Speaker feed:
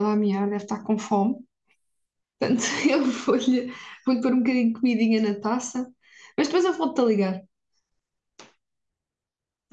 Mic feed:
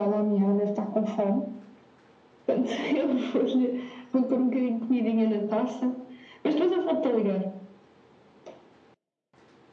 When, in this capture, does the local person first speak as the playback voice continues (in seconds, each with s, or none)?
none